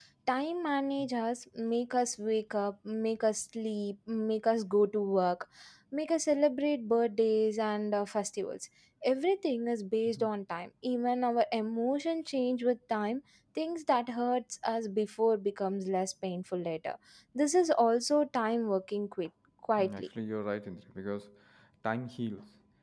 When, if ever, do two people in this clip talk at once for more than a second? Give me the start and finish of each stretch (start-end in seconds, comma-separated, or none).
none